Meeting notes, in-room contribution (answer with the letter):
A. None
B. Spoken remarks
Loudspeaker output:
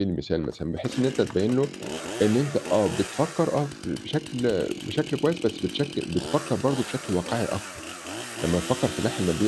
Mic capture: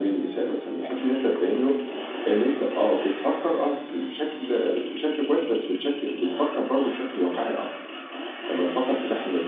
A